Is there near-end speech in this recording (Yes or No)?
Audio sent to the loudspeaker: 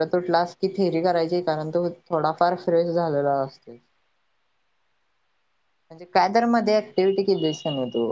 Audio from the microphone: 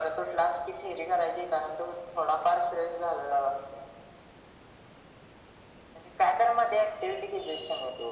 No